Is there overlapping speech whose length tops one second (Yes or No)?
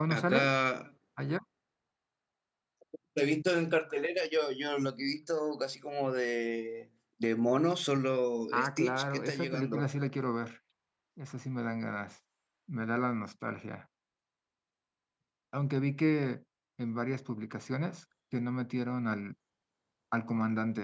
Yes